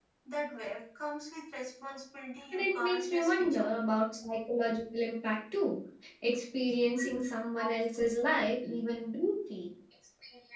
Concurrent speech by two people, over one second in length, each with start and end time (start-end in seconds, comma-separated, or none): 2.5-3.7